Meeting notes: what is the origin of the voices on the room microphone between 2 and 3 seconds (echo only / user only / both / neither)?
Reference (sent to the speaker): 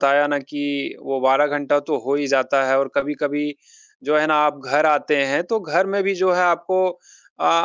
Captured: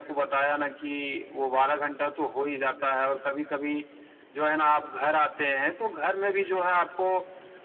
echo only